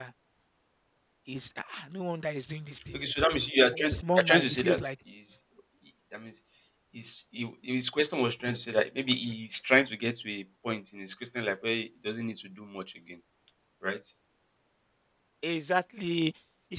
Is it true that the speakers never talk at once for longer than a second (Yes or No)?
No